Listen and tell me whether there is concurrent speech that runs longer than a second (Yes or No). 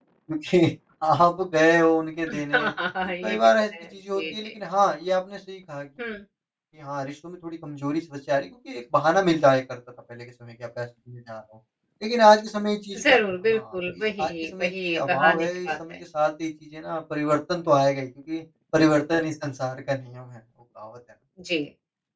Yes